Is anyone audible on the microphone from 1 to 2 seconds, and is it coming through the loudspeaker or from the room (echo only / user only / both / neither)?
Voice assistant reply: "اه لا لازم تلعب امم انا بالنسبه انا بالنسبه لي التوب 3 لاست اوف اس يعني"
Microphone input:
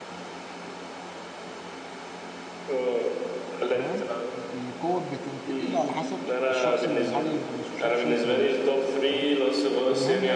neither